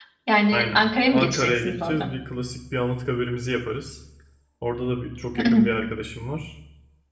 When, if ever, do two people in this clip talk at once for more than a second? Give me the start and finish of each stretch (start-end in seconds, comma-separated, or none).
0.5-2.1